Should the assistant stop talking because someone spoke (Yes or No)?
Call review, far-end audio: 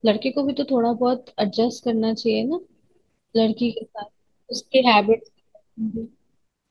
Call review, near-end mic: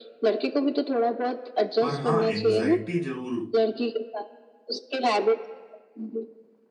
Yes